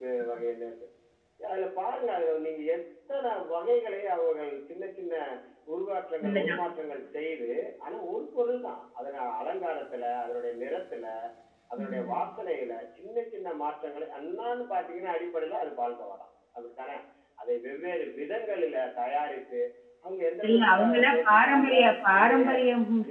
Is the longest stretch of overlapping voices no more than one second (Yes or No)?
No